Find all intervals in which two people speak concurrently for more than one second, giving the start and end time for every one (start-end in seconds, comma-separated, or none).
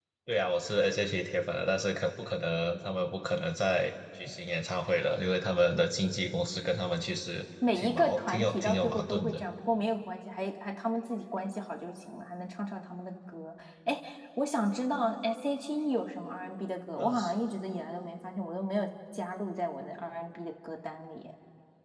7.8-9.4